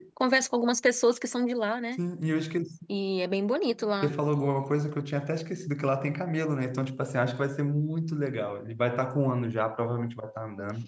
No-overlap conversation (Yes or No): Yes